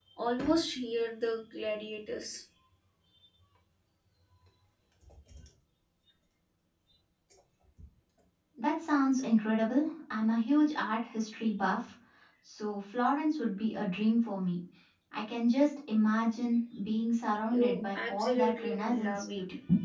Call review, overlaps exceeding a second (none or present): present